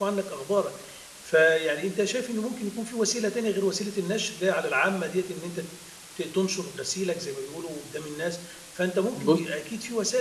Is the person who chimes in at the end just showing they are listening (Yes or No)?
Yes